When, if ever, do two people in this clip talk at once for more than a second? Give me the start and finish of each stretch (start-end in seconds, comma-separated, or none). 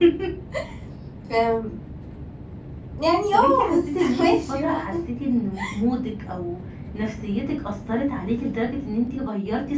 3.3-4.8